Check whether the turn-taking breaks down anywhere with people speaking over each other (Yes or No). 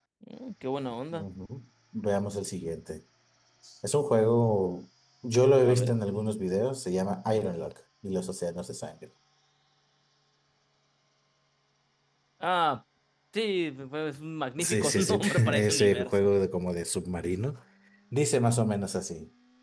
Yes